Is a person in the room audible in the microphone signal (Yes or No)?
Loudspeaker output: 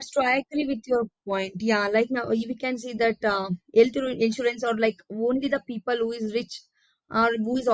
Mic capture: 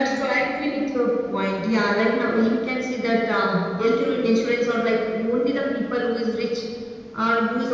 No